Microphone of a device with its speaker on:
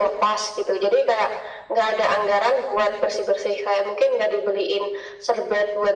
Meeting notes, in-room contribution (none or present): none